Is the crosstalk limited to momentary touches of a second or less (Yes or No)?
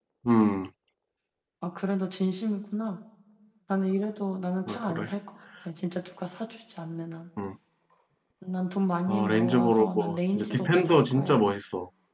No